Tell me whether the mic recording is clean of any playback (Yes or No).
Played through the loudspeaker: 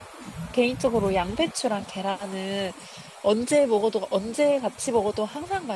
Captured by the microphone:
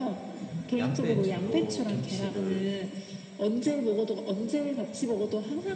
No